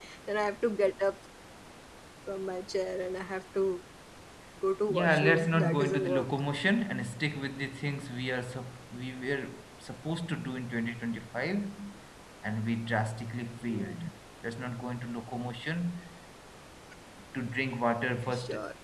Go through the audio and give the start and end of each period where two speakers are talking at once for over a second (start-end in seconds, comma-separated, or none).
4.9-6.3